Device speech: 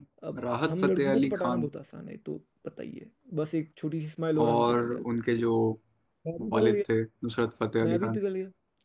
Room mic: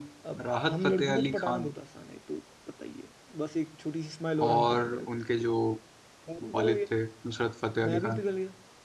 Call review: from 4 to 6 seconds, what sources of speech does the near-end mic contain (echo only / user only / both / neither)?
echo only